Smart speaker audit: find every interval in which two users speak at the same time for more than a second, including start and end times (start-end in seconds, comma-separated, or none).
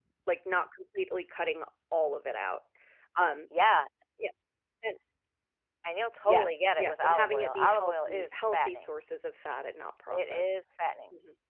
6.2-8.8